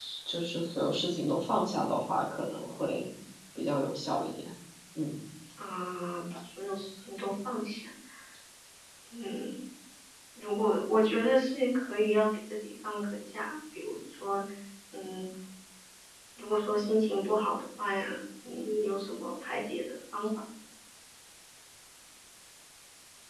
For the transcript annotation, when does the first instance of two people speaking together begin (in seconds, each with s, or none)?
none